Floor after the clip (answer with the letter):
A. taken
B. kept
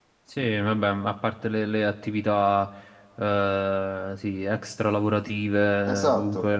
B